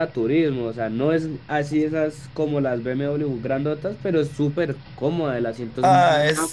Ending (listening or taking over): taking over